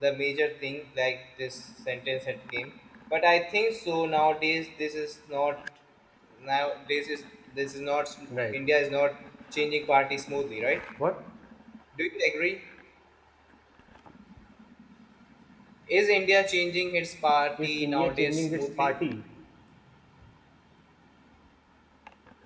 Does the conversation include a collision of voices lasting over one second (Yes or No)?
Yes